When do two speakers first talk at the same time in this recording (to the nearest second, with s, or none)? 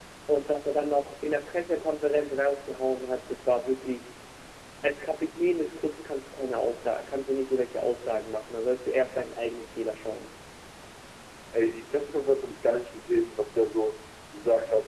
none